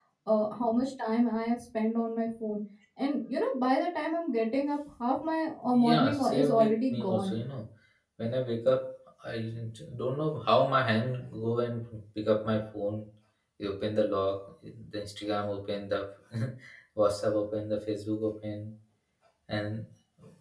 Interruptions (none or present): present